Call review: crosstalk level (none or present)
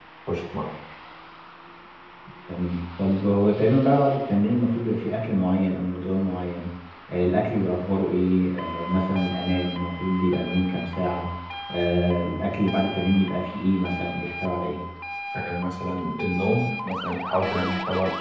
none